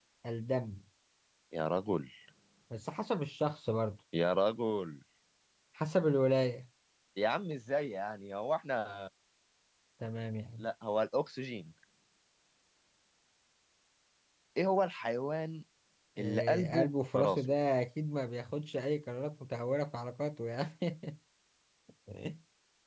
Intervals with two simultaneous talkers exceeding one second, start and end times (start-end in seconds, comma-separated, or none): 16.2-17.4